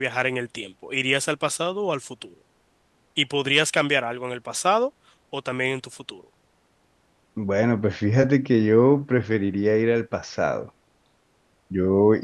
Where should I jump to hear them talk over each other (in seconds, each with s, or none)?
none